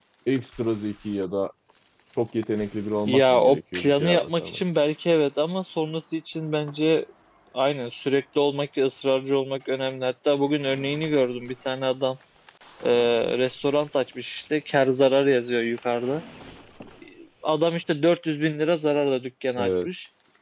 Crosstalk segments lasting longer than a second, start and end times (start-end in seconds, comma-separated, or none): 3.0-4.6